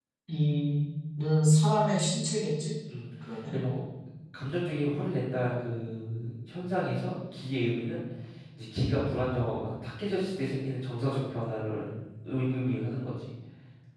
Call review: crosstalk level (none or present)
none